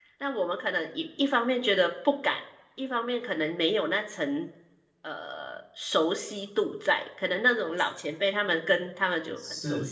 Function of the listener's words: listening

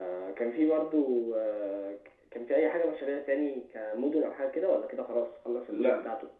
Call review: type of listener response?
taking over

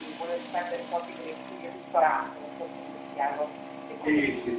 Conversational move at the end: taking over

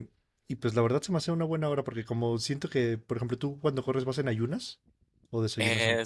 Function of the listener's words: taking over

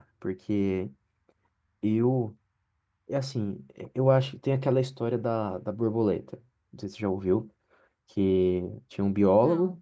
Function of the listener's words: listening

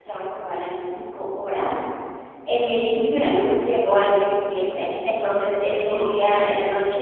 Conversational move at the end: listening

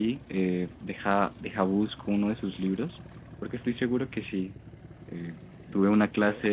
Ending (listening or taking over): listening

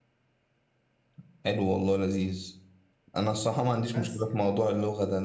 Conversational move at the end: listening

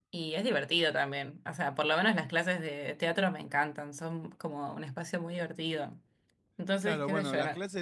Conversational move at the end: taking over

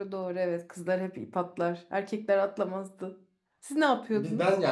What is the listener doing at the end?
taking over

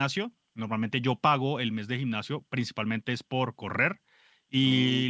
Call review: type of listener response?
listening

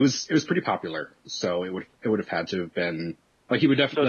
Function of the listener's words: listening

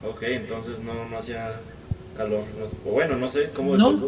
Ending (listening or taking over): taking over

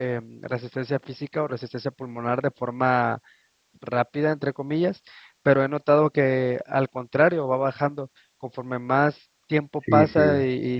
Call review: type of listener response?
taking over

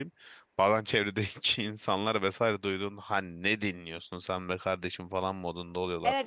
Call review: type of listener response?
taking over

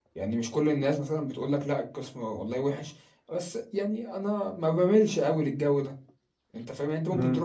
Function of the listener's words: listening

